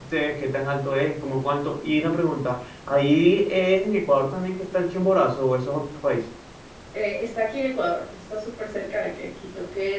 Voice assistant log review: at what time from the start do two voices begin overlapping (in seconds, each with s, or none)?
none